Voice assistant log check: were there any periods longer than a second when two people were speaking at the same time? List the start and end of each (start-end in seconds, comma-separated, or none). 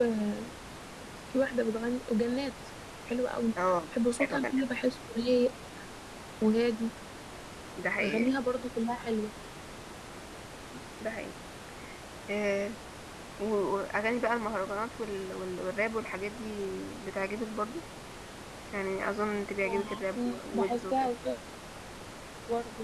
19.6-21.1